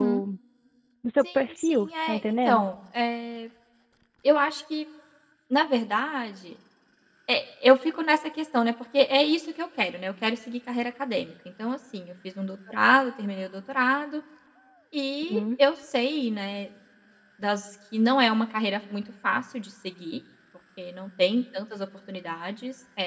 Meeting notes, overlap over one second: present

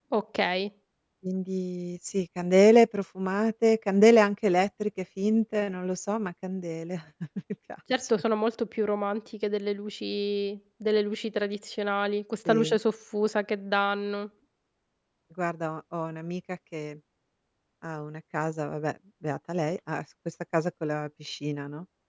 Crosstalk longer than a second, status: none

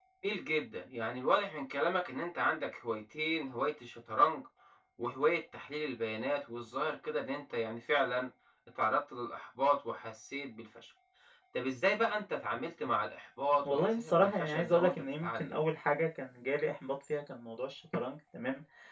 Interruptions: present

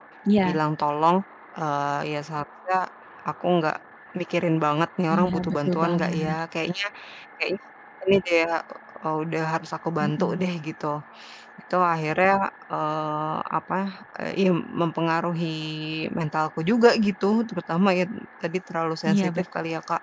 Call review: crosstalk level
present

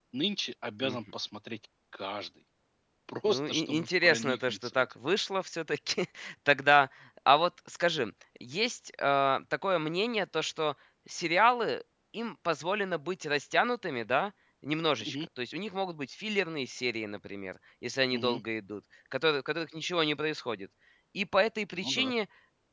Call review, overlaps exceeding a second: present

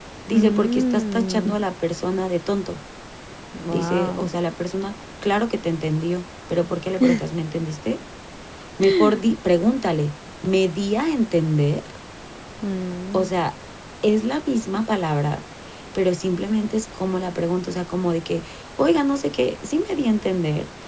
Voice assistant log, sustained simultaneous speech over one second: present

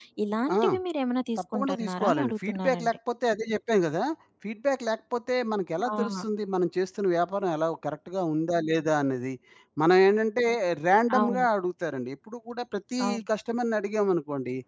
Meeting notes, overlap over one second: present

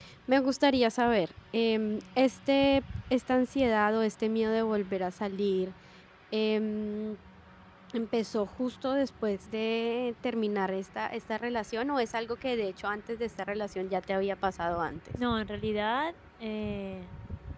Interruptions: none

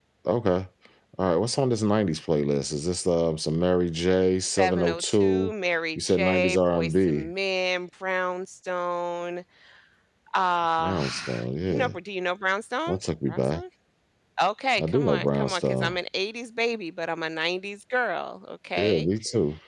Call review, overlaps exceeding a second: present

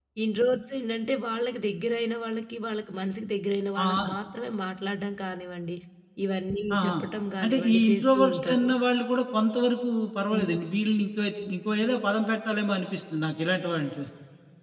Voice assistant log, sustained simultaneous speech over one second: present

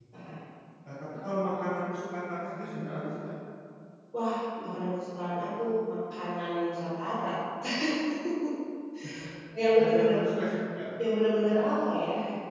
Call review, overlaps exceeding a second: none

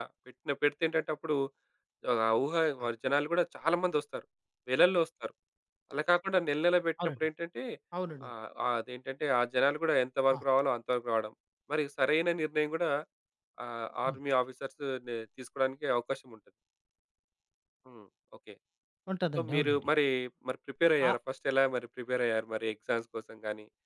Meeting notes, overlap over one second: none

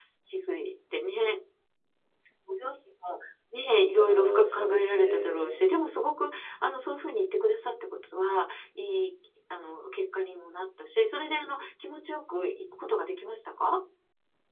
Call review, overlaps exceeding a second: present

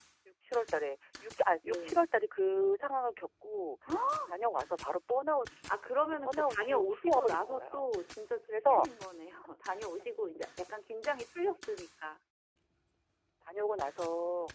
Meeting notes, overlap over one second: present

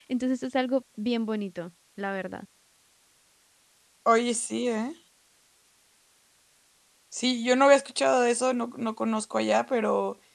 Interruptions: none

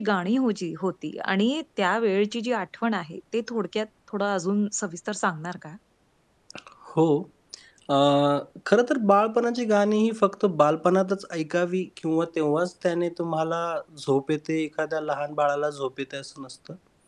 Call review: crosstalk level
none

